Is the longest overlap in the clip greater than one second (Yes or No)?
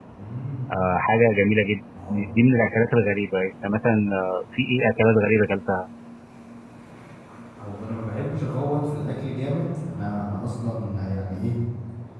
No